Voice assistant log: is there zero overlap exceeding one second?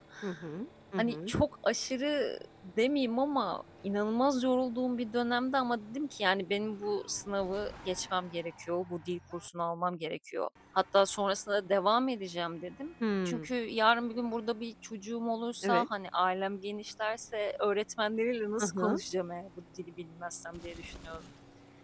Yes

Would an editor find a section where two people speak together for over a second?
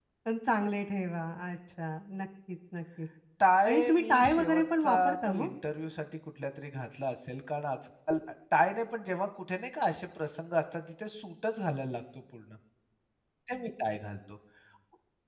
Yes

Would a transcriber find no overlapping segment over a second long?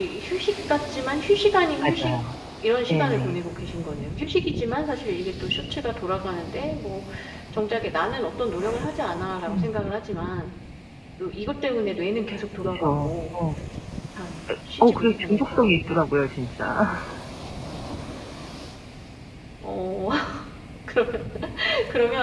No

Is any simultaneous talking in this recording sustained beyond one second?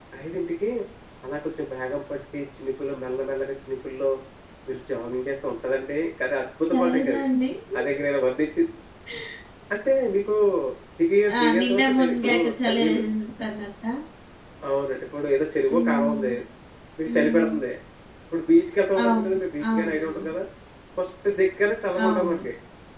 Yes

